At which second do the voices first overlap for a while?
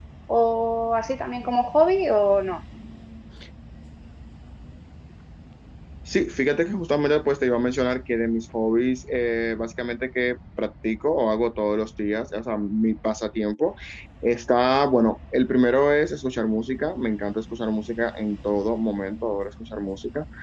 none

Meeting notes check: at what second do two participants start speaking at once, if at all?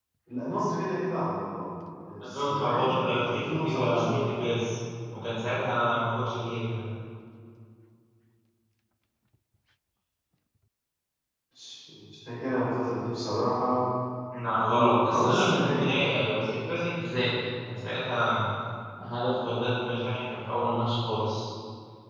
2 s

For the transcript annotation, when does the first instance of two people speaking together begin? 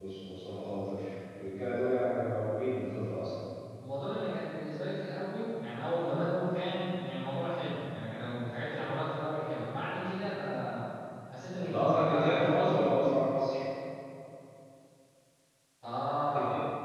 12 s

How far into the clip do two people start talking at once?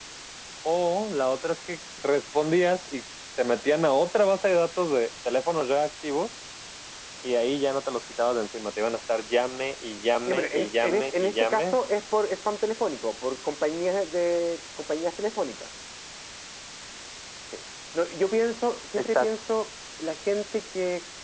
10 s

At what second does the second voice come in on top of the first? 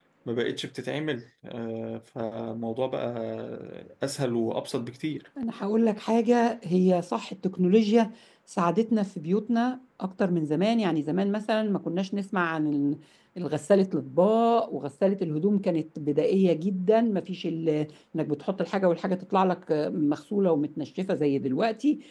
none

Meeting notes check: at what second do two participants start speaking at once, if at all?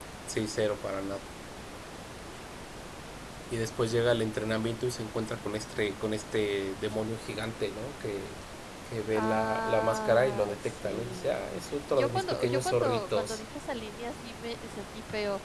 9 s

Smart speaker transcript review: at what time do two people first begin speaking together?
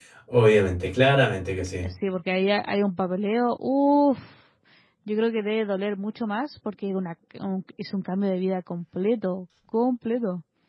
none

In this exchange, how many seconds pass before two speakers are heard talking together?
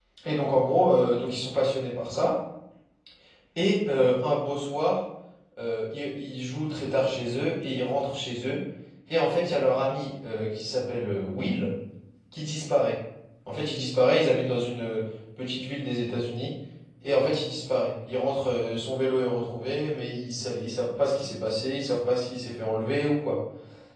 none

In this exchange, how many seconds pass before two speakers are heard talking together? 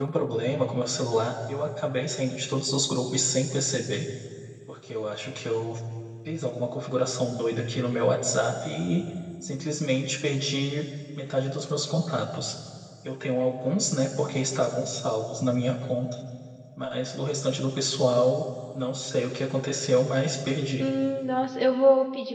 none

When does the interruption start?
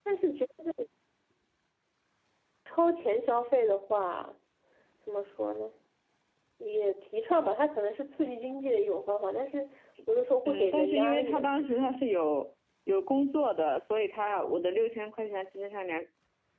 10 s

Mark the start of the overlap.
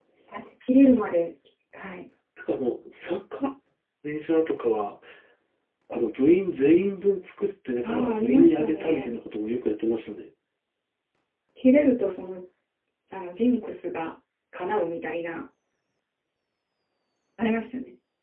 8 s

